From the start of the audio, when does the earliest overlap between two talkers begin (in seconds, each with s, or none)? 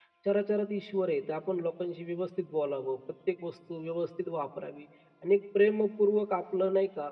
none